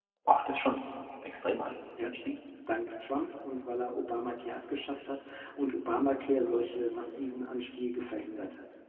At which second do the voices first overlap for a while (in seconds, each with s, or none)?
none